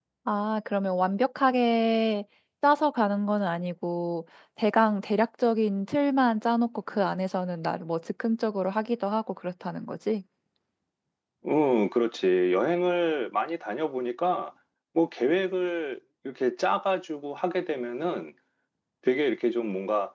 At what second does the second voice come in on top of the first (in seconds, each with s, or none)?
none